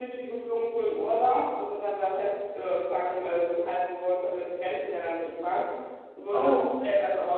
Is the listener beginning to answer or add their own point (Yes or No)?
No